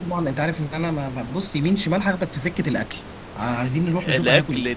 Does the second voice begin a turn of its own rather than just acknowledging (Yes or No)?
Yes